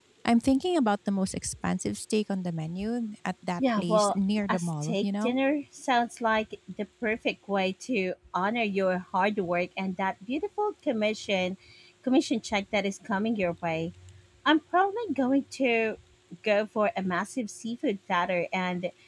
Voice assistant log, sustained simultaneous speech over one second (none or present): present